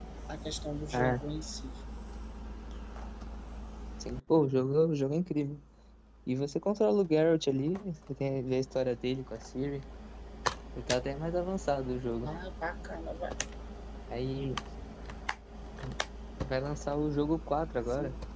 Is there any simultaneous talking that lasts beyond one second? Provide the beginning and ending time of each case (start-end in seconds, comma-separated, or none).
none